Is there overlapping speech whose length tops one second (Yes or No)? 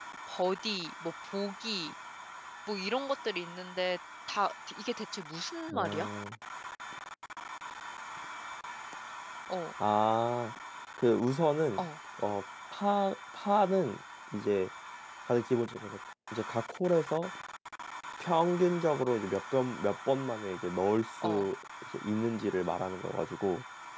No